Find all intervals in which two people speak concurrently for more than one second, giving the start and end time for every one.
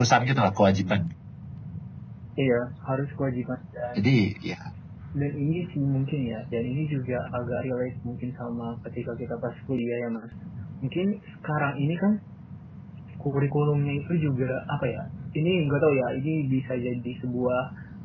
none

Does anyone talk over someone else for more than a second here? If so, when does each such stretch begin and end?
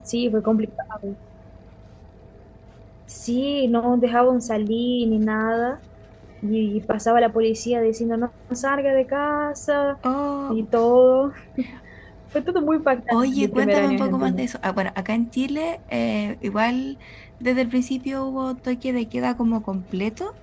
13.1-14.4

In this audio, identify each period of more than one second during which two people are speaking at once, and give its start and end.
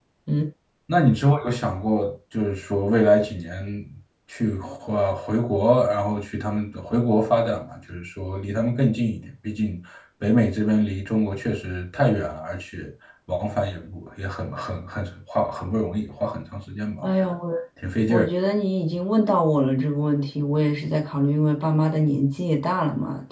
none

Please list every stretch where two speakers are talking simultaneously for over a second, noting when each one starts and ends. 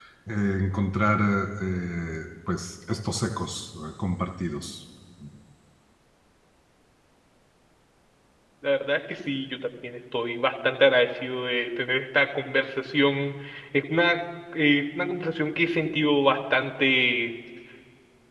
none

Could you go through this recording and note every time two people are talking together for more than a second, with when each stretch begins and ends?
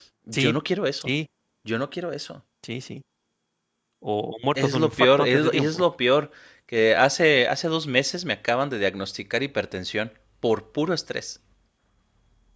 4.5-5.8

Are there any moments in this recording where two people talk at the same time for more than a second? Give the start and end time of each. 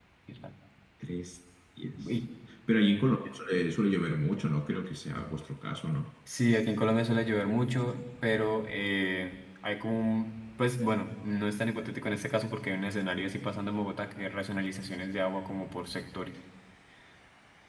none

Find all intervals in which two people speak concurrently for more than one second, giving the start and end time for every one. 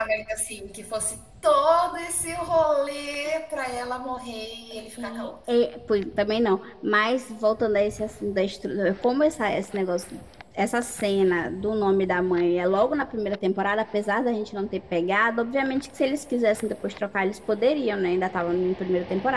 none

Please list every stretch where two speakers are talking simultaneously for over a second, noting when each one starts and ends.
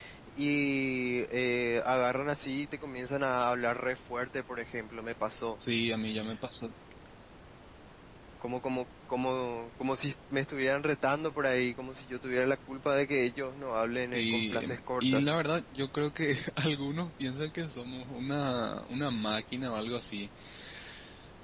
14.1-15.4

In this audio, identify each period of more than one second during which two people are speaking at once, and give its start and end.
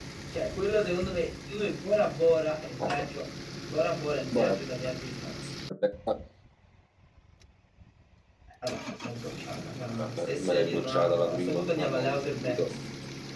10.0-12.7

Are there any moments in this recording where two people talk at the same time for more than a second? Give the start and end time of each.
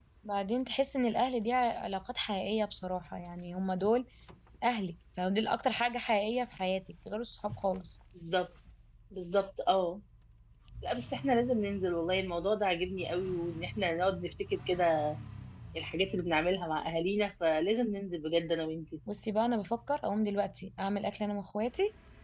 none

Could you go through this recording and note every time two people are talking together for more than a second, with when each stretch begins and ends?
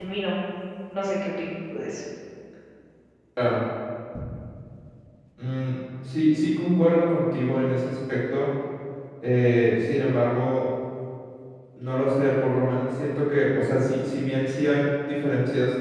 none

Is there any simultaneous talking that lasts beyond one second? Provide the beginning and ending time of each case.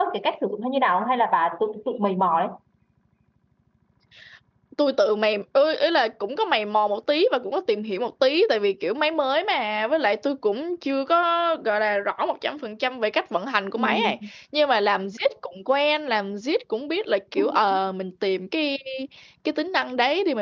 none

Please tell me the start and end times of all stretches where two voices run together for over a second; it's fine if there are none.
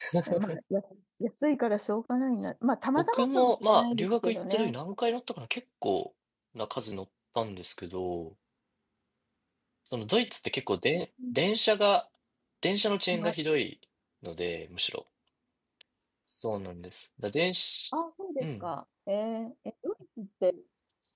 3.0-4.7

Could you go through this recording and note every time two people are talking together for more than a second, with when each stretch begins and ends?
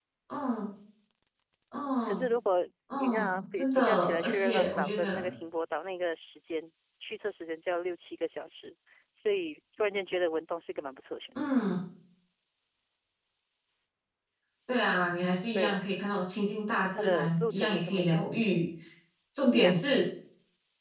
3.0-5.3, 16.9-18.3

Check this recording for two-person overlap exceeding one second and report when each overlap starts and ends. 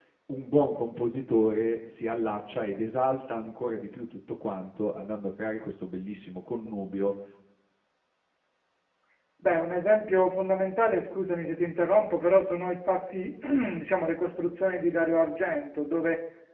none

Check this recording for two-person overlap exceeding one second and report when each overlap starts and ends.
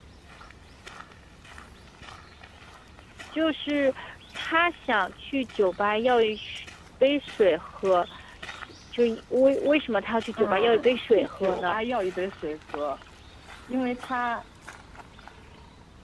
10.4-11.8

